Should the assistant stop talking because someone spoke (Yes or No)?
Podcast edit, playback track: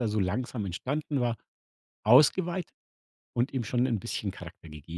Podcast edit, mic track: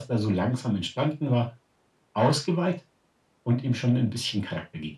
No